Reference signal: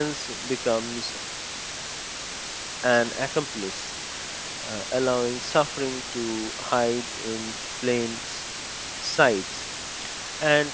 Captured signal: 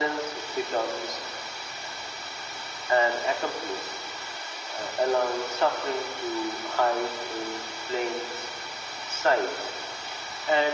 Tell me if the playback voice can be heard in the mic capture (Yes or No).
Yes